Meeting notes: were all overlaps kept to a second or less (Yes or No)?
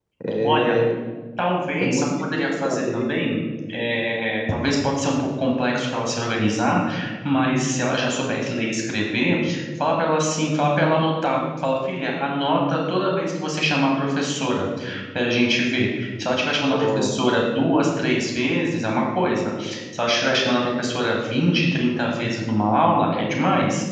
No